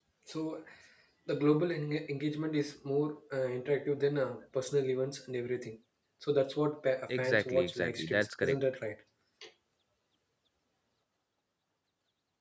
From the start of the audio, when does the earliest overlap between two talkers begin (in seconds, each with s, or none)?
7.1 s